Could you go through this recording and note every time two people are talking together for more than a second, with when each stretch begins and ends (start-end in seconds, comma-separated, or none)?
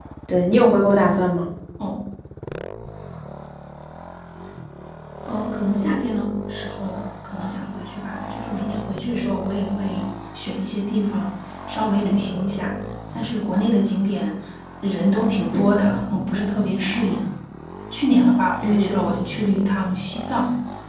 none